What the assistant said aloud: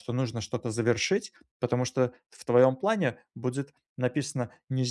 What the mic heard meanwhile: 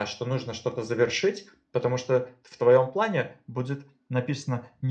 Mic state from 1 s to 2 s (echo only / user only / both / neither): echo only